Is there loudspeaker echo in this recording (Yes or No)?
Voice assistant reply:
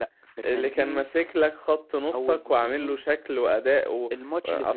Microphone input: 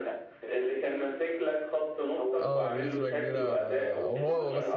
Yes